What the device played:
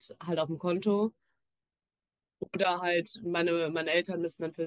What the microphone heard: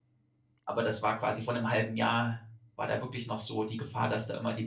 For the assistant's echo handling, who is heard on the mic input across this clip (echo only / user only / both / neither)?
user only